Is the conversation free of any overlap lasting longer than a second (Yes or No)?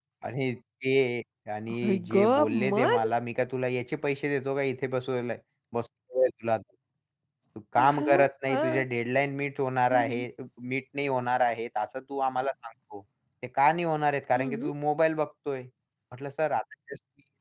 No